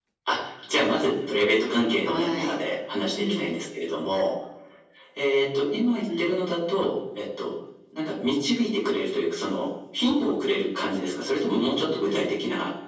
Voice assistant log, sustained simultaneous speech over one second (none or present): none